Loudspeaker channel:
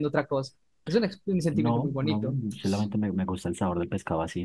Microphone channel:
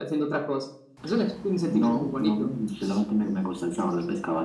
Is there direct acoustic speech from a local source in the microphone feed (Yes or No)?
No